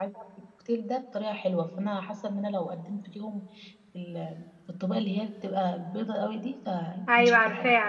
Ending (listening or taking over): taking over